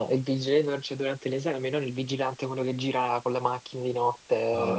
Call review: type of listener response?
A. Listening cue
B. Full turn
A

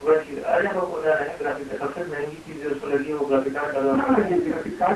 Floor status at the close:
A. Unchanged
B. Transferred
B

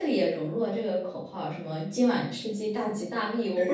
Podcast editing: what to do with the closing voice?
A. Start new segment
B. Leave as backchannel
A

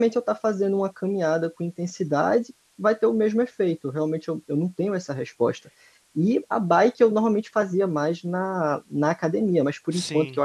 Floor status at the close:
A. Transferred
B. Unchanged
B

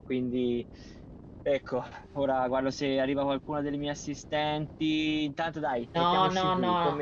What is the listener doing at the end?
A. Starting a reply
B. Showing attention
A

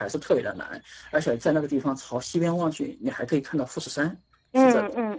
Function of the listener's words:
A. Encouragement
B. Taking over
B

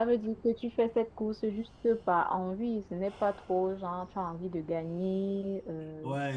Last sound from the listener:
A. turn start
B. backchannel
B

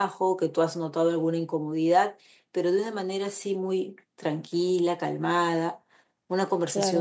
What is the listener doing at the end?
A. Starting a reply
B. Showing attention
A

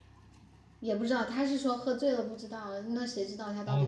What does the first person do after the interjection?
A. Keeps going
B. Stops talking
B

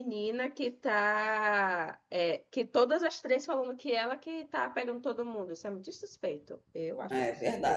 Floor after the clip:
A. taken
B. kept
A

